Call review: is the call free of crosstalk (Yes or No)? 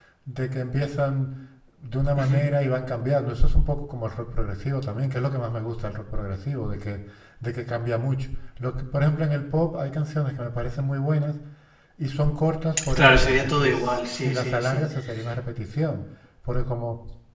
No